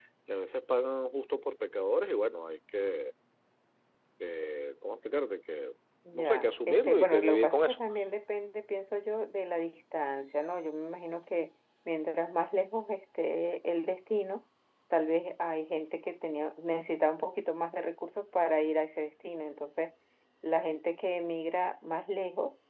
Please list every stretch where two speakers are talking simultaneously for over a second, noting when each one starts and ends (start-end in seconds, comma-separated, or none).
6.1-7.8